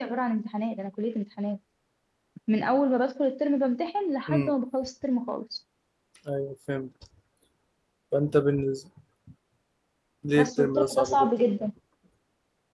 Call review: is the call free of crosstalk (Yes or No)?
No